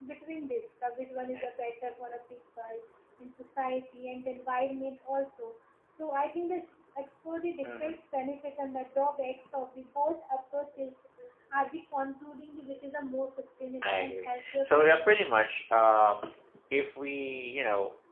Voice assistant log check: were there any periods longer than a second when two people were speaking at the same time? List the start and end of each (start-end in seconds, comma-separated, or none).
13.8-15.3